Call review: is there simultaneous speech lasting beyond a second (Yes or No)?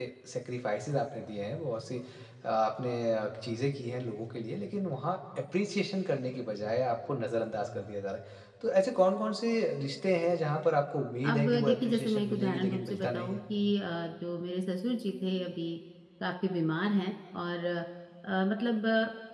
Yes